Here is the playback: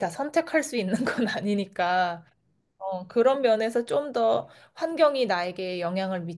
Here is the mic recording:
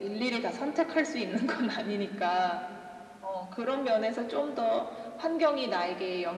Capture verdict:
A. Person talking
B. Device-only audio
B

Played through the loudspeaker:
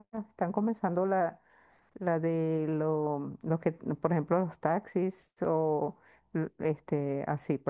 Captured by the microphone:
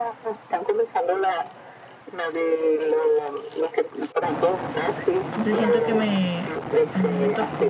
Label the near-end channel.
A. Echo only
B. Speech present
B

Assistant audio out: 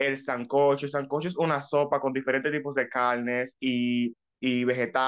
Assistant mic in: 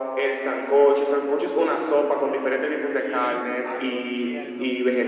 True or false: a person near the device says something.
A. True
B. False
A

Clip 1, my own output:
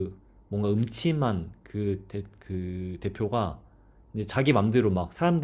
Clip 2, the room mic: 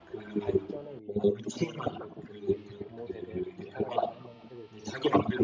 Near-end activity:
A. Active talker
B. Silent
A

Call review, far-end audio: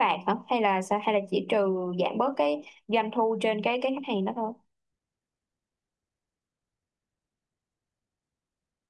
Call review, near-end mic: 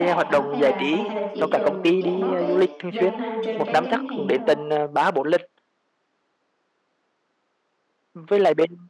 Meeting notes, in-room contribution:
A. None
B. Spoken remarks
B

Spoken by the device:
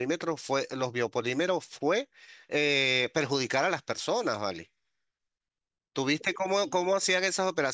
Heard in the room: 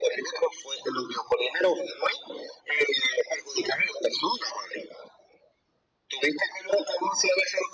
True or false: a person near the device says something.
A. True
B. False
B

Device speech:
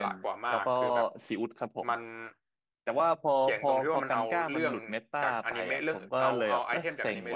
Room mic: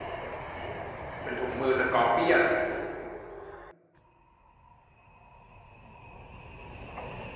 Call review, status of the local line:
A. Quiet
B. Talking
B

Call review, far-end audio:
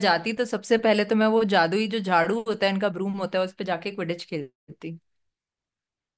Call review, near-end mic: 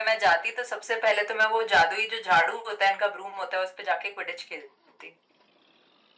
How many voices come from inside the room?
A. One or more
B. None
B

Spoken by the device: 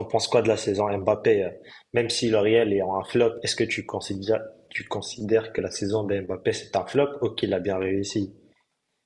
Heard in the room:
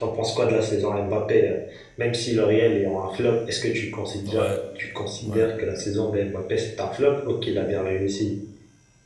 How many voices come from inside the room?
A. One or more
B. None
A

